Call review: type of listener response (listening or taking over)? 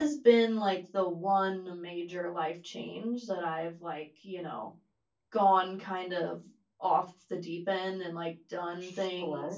listening